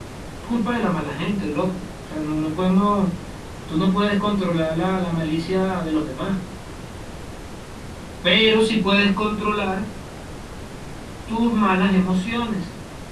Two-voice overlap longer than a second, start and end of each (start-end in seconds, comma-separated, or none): none